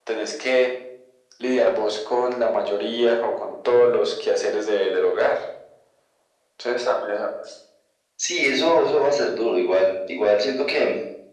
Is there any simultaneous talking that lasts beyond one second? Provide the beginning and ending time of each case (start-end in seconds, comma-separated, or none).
none